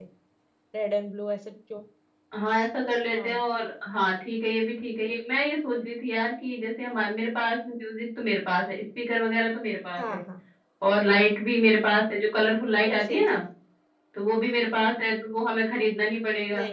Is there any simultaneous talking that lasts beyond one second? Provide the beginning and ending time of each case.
none

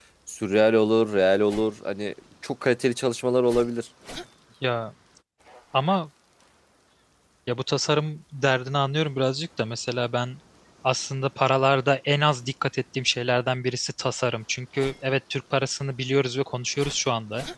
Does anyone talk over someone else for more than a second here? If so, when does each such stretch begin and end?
none

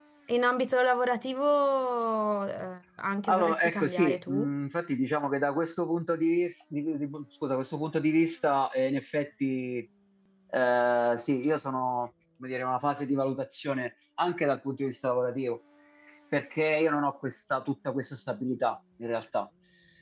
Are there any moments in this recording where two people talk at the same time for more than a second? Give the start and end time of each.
3.3-4.5

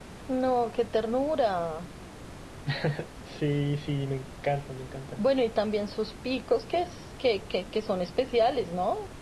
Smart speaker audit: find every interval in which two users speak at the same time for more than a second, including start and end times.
none

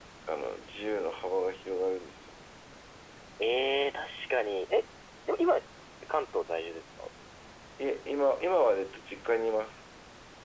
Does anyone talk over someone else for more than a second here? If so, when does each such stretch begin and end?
none

